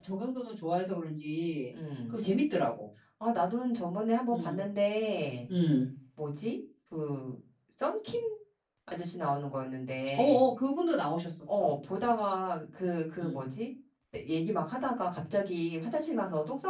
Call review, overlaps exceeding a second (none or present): none